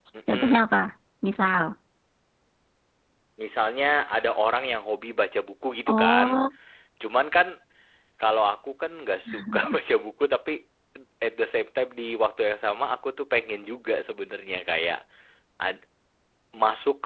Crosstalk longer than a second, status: none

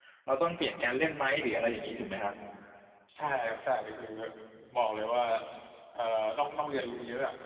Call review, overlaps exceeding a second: none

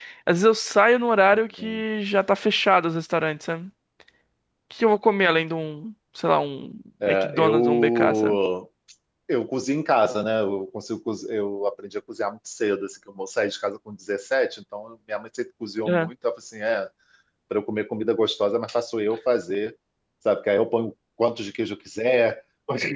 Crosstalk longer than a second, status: present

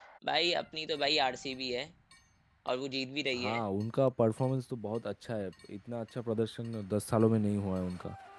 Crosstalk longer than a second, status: none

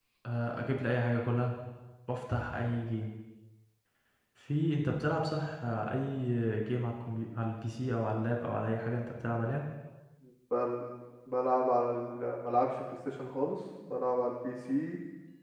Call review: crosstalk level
none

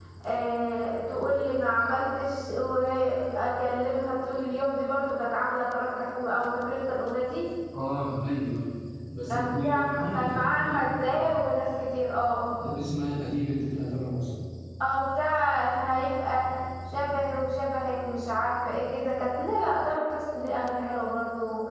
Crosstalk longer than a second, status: present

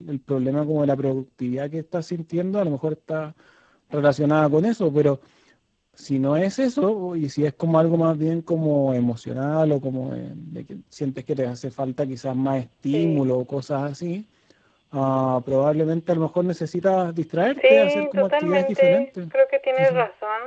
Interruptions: present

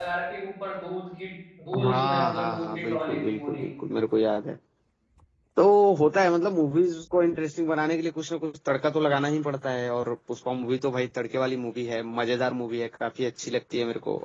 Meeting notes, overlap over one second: present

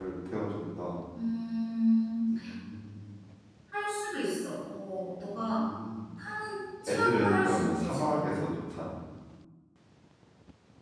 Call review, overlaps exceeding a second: present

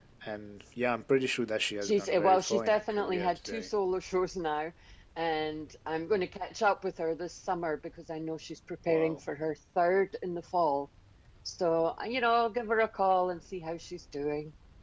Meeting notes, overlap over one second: present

